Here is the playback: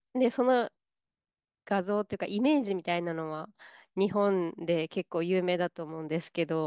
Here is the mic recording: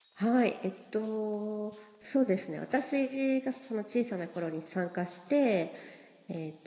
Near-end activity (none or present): present